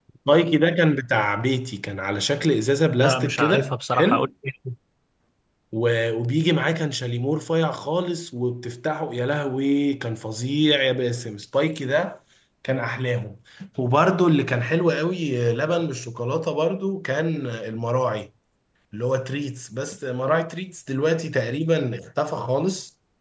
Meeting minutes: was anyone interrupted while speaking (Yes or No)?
Yes